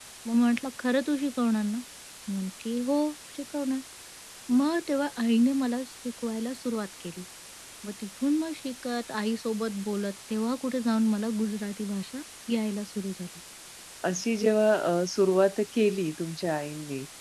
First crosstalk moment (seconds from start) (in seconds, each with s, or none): none